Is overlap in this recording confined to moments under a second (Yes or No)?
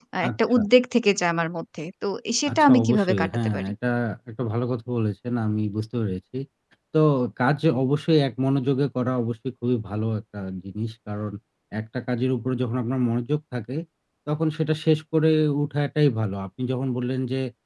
No